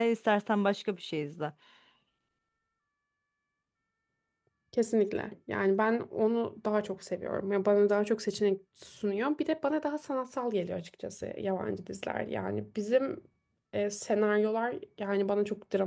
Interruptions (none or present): none